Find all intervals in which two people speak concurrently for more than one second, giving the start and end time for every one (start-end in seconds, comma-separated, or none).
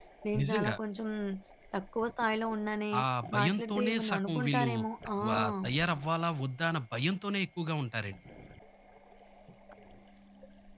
3.4-4.7